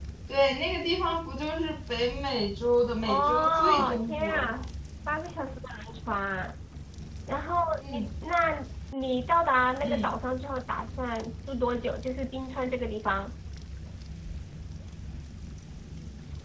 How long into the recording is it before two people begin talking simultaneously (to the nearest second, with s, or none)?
3 s